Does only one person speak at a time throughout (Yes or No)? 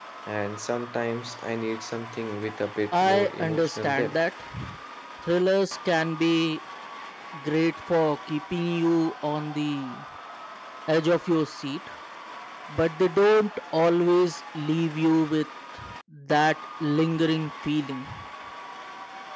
No